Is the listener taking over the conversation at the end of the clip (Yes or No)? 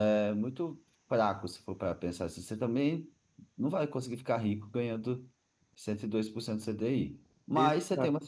No